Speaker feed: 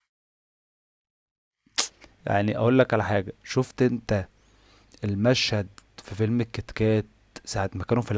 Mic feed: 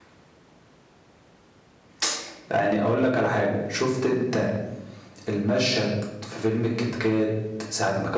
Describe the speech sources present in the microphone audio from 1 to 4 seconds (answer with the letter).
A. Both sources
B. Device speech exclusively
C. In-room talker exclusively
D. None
B